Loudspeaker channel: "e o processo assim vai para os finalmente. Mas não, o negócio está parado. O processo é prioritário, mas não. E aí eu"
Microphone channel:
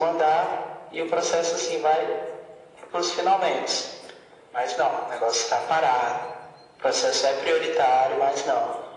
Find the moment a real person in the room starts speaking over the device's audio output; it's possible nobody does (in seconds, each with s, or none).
none